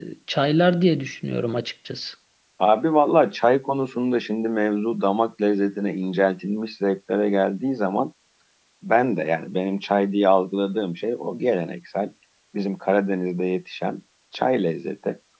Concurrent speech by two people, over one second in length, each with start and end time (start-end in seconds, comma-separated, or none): none